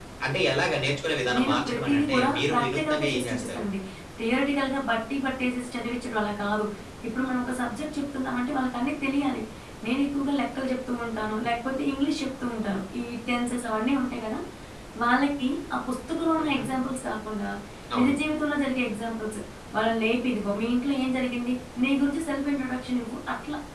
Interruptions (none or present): present